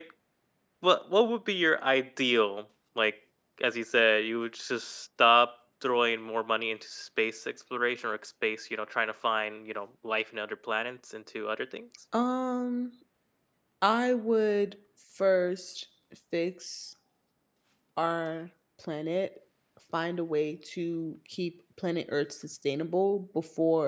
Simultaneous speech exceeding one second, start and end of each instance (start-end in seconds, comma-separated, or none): none